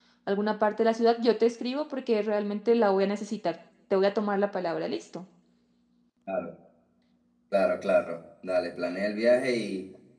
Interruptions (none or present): none